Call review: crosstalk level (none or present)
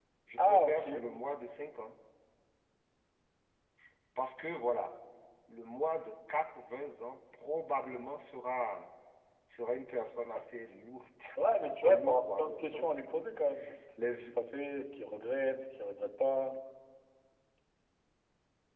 present